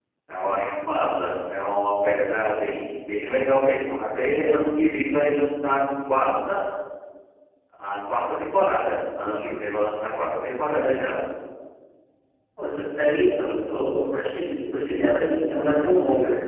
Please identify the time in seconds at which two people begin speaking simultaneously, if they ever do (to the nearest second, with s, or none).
none